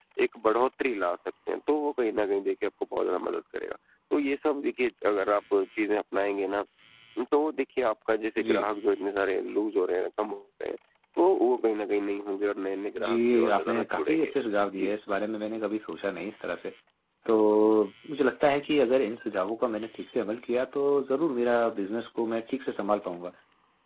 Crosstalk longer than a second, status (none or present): present